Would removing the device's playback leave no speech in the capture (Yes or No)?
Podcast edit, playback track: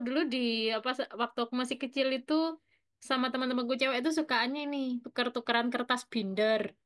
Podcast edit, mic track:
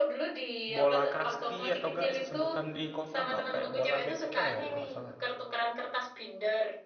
No